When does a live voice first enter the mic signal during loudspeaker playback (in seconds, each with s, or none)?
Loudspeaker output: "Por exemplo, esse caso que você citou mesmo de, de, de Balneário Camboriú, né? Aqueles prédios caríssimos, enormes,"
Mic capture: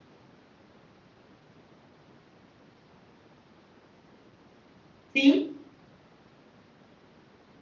5.2 s